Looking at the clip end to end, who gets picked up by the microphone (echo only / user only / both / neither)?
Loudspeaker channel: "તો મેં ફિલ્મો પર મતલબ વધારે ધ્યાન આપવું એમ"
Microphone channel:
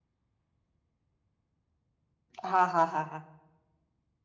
user only